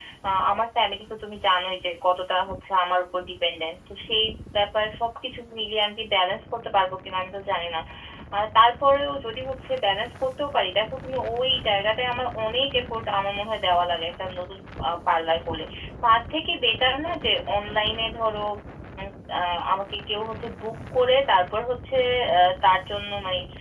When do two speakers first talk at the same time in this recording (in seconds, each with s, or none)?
none